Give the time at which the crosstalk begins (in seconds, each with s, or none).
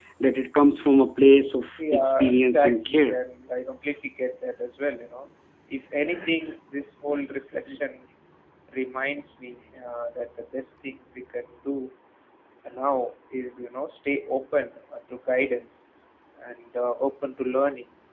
1.9 s